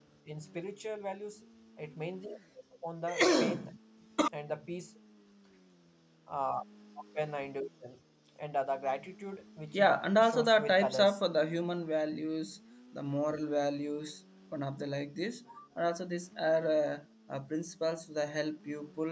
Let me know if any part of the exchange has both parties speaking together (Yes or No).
Yes